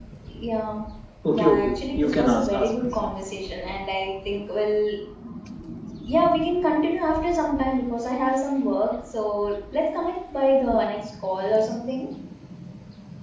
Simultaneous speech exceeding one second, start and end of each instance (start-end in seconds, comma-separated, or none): 1.3-2.9